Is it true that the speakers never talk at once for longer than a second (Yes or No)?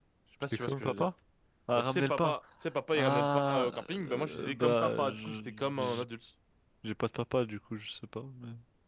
No